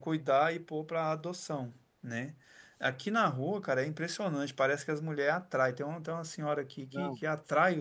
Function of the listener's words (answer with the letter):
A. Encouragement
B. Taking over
A